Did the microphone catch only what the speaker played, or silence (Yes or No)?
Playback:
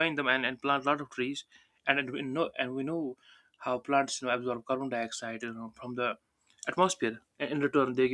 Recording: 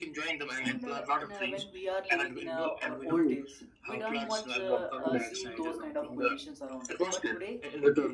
No